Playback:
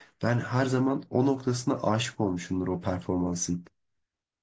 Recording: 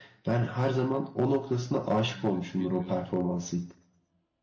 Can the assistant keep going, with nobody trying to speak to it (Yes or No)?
No